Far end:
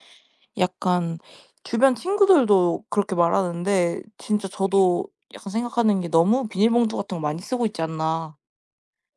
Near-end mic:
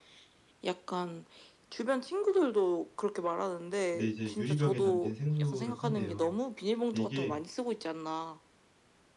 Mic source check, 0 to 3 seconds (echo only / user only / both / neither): echo only